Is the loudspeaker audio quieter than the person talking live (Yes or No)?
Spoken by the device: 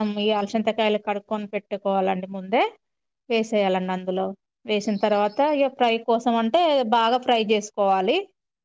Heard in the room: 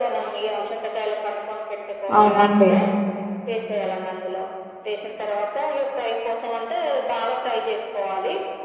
Yes